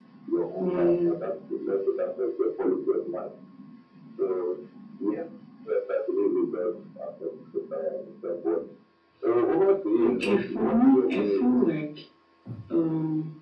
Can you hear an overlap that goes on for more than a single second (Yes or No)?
Yes